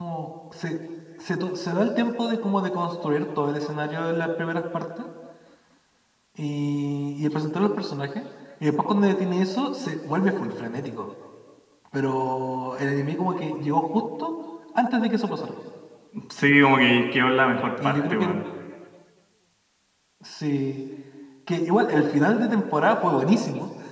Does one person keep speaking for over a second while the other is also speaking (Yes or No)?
No